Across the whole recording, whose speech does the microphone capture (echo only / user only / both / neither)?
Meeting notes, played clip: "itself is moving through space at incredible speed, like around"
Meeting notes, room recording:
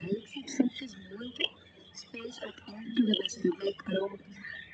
echo only